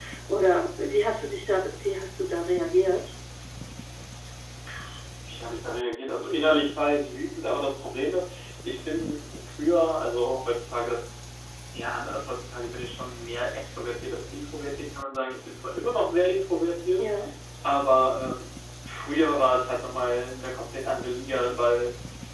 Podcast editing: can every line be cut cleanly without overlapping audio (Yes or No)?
Yes